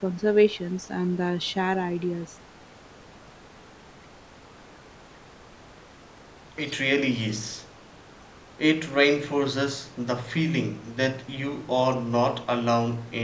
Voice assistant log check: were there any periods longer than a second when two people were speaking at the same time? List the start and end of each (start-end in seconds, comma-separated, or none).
none